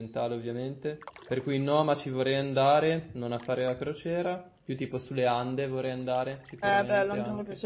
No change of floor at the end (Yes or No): No